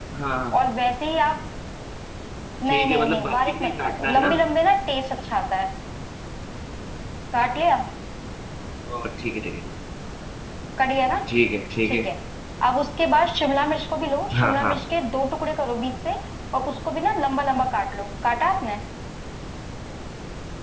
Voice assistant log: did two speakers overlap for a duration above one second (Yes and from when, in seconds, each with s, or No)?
Yes, from 2.7 s